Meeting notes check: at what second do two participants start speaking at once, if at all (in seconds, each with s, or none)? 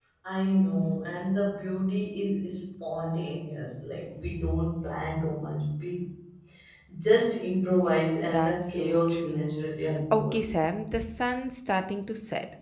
8.2 s